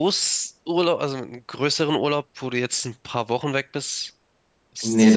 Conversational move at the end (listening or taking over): taking over